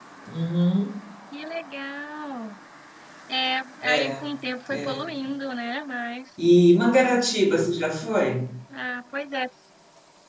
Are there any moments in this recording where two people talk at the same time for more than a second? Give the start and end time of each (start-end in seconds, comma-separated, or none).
none